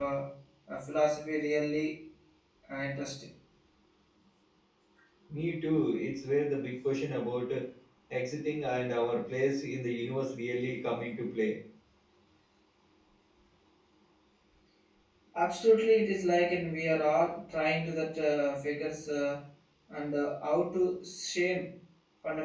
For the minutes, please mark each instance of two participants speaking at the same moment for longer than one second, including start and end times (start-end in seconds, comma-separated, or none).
none